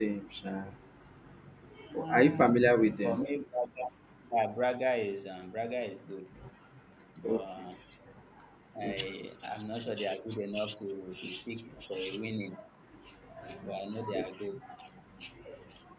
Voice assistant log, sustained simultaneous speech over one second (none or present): none